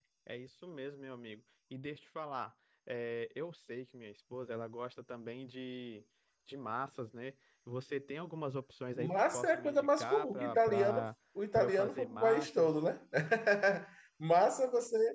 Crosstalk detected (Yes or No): Yes